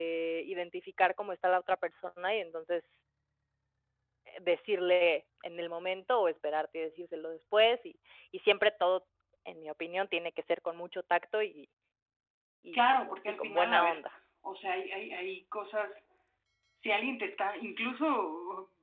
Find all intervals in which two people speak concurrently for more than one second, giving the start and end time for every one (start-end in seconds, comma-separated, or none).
12.7-14.0